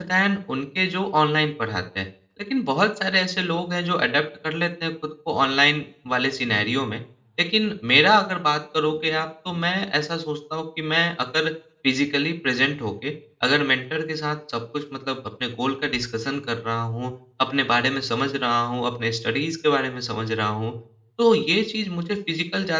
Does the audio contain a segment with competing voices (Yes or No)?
No